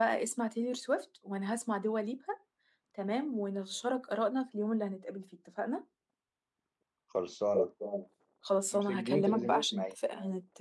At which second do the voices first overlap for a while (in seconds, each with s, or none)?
8.7 s